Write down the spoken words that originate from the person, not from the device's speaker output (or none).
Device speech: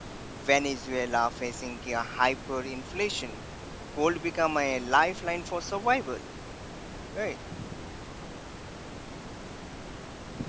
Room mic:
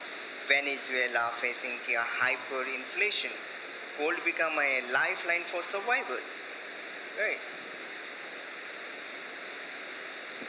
none